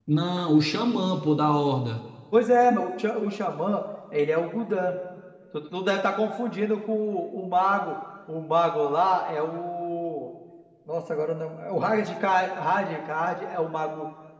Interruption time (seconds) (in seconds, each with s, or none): none